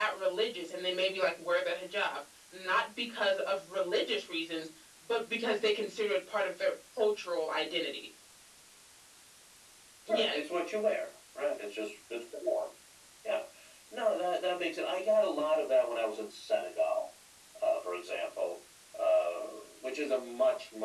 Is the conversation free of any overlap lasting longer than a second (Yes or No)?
Yes